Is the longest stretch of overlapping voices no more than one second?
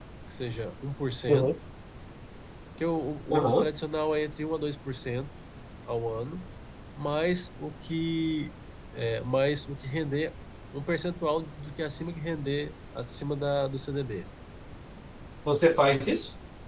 Yes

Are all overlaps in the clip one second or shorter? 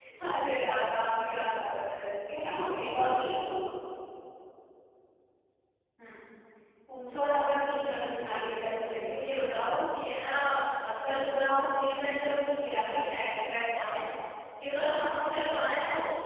No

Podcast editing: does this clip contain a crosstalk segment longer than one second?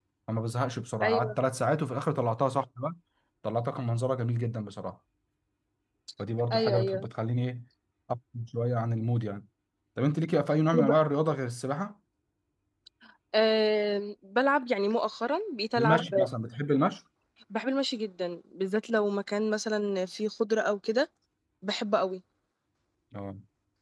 No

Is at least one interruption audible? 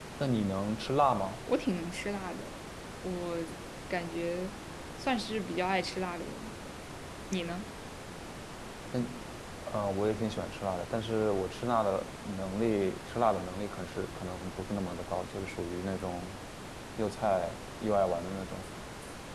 No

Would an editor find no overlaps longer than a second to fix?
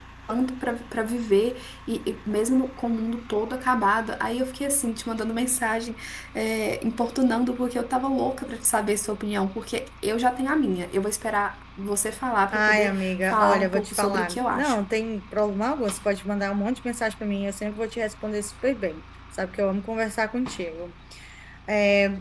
No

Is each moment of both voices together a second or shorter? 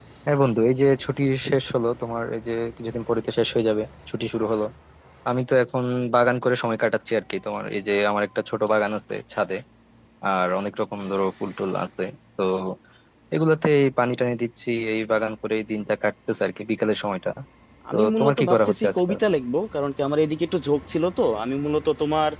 No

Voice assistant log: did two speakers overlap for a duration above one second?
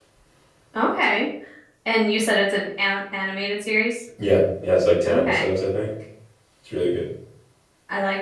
No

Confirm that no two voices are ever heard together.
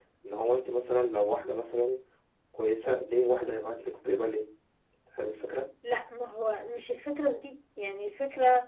Yes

